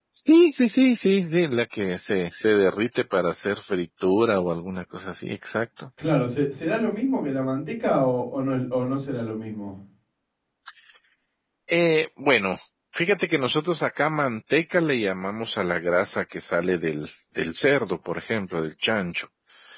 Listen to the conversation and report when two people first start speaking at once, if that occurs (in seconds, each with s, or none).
none